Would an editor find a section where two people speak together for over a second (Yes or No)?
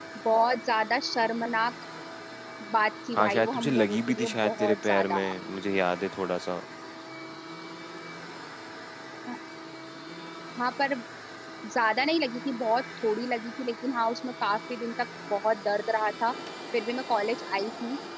Yes